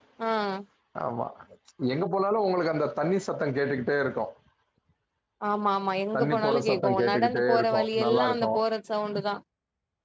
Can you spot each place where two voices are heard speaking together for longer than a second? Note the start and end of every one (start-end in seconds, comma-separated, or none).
6.4-8.6